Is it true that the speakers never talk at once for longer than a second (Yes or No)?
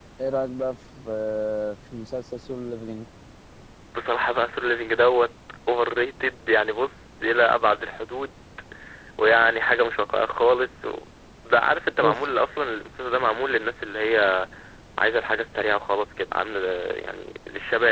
Yes